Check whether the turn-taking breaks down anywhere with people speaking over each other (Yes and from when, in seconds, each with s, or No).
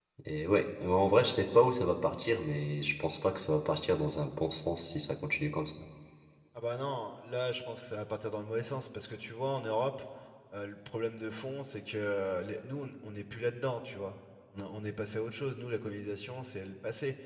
No